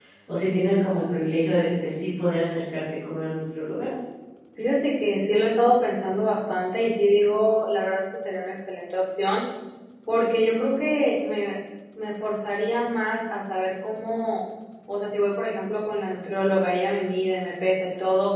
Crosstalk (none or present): none